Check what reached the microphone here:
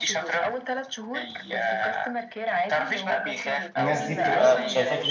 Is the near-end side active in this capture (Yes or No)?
Yes